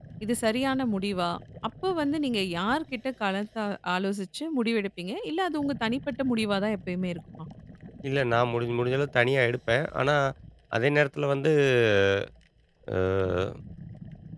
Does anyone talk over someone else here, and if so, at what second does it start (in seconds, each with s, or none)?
none